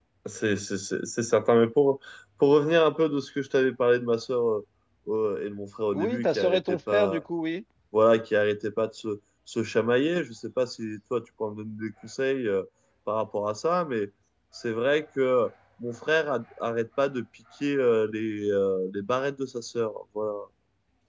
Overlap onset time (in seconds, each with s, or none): 5.9 s